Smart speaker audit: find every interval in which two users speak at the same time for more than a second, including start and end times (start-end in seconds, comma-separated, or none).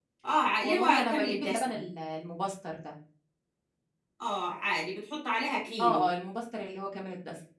0.6-1.8